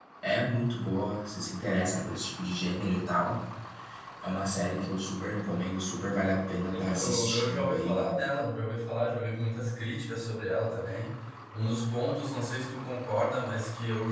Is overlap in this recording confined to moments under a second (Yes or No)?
No